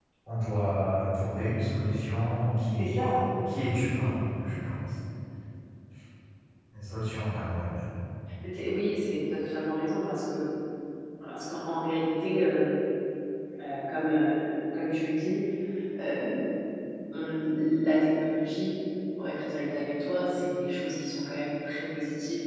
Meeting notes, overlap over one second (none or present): none